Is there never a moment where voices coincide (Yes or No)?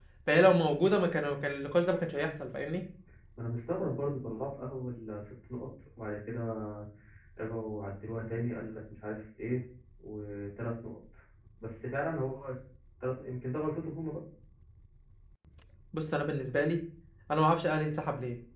Yes